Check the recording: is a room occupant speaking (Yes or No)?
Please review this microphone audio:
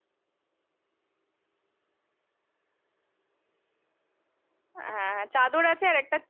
Yes